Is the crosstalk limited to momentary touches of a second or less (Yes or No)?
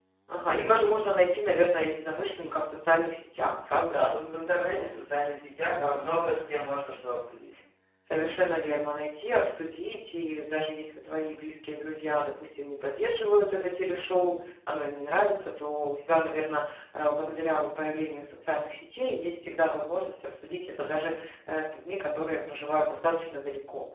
Yes